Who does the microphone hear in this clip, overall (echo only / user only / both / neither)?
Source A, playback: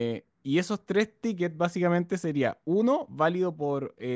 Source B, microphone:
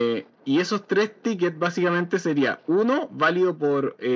echo only